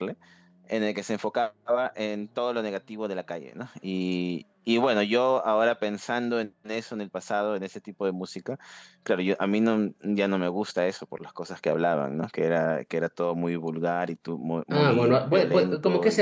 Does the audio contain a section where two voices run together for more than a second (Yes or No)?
Yes